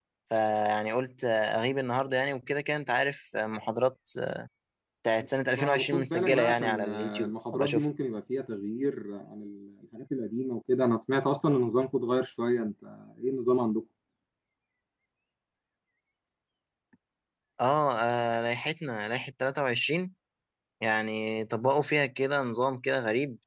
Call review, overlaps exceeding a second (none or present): present